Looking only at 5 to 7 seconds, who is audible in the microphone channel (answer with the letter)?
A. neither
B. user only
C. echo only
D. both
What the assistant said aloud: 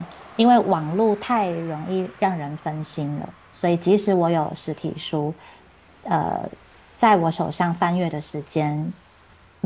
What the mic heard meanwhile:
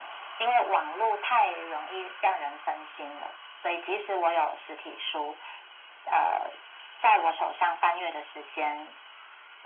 C